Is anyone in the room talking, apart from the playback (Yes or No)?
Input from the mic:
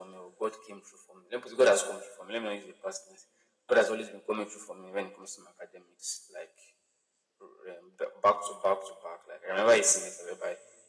No